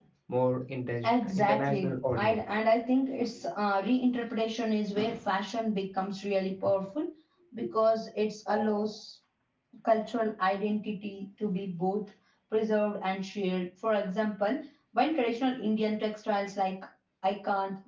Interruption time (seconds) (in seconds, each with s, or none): 1.1 s